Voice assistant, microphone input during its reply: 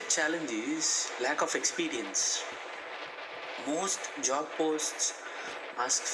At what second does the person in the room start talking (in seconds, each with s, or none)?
none